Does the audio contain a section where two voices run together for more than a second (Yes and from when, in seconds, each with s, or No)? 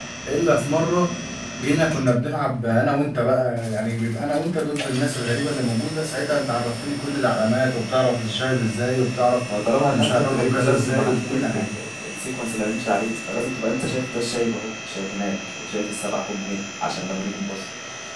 Yes, from 9.9 s